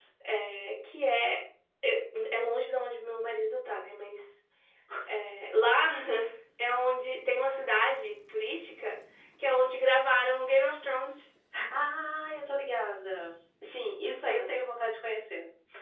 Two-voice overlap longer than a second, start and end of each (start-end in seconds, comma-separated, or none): none